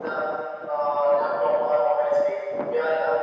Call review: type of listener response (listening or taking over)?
listening